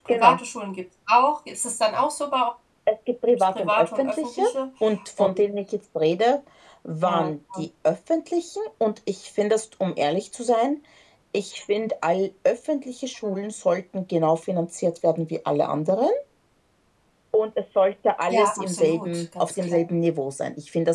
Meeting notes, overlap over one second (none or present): present